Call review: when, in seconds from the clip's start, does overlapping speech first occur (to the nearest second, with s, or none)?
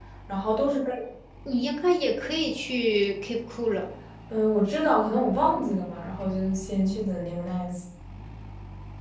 none